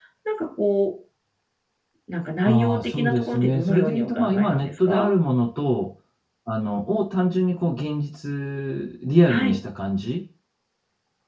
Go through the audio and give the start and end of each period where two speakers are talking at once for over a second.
2.5-5.1

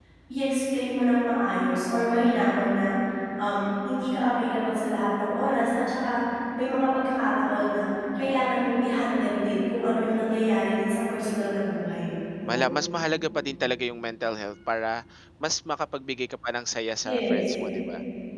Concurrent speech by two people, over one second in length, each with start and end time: none

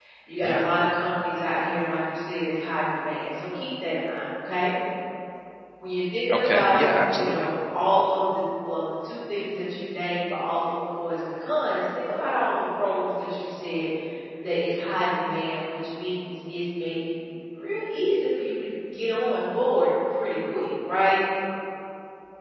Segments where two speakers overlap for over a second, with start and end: 6.3-7.5

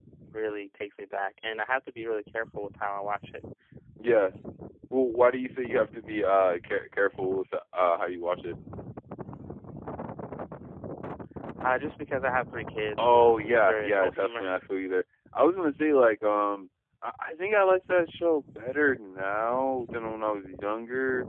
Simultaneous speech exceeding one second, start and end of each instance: 13.0-14.5

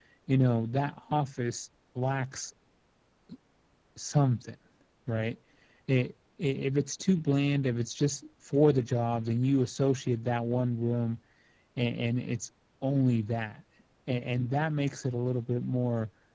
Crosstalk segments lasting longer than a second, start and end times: none

